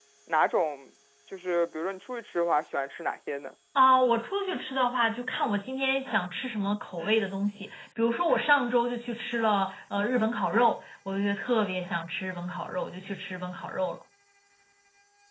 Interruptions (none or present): none